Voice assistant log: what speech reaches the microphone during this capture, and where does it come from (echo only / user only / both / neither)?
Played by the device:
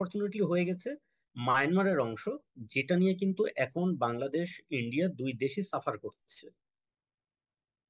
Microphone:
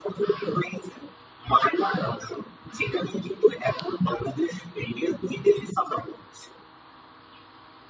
echo only